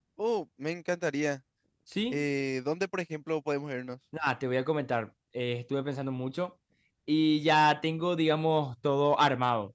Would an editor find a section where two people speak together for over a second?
No

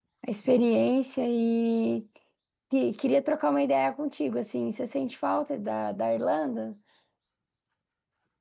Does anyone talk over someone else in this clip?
No

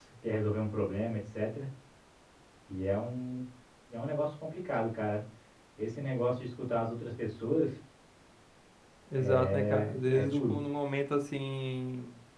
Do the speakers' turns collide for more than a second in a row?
Yes, from 9.1 s

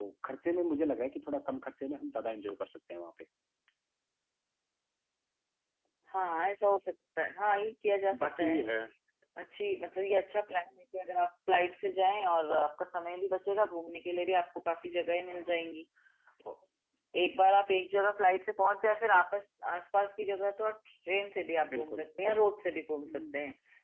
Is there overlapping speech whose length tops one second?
No

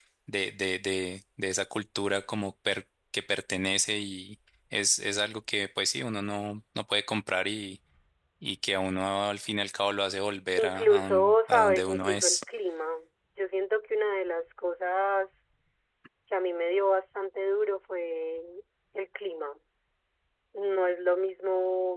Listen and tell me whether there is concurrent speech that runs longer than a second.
Yes, from 10.6 s

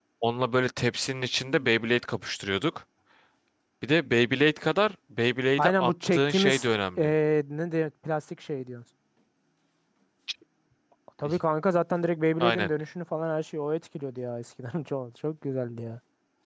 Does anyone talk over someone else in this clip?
Yes, from 5.6 s

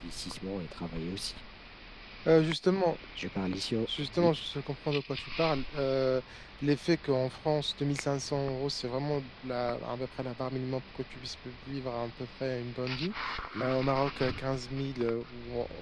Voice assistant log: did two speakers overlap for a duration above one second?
No

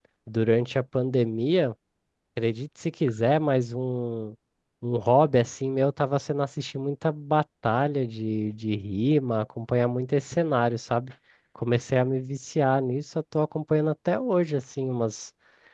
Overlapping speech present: No

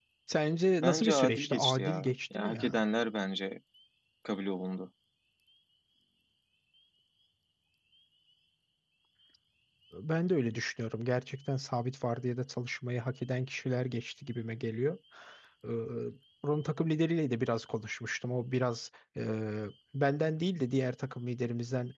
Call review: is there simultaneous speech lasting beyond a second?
Yes, from 0.8 s

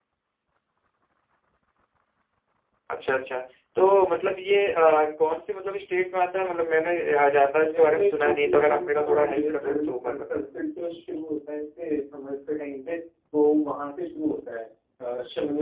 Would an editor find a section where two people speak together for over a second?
Yes, from 7.7 s

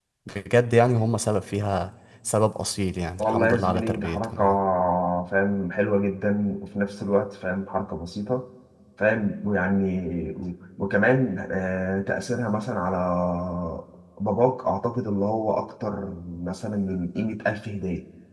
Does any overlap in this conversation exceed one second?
Yes, from 3.2 s

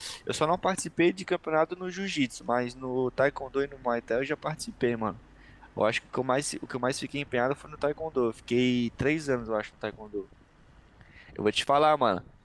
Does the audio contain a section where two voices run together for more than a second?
No

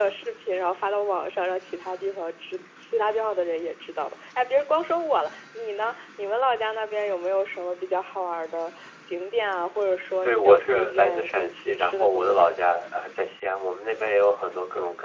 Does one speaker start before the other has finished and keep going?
Yes, from 10.2 s

